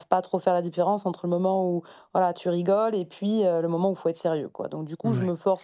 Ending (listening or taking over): listening